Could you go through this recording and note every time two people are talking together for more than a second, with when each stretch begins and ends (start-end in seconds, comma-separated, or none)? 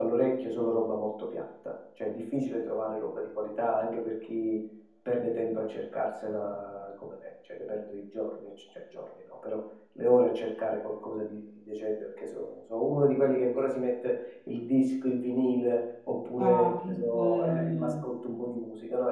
16.4-18.0